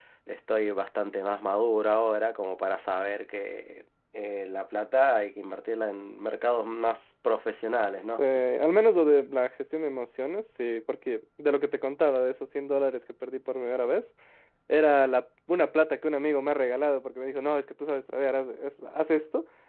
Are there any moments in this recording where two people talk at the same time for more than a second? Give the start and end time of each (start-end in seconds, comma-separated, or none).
none